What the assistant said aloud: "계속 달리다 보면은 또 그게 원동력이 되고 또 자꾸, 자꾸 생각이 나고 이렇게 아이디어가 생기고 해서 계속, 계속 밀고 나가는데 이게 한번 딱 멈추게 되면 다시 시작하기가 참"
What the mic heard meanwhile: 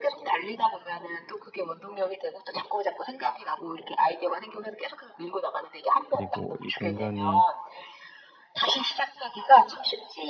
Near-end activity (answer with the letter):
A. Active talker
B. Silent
A